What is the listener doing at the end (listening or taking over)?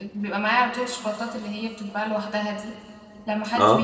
listening